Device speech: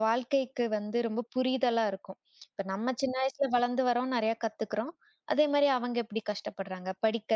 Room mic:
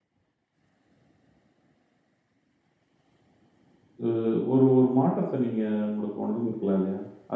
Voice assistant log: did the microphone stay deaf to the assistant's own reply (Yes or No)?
Yes